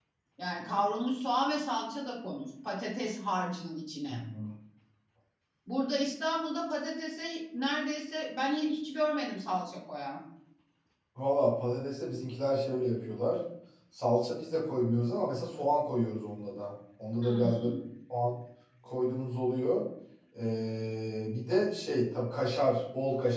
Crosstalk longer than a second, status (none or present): none